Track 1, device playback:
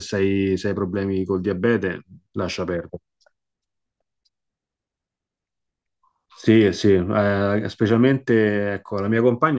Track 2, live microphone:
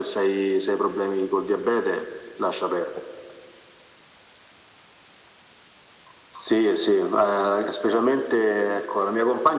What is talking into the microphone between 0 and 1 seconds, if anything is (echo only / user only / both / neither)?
echo only